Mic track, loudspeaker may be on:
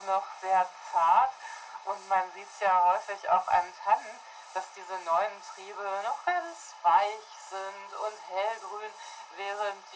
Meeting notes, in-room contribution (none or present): none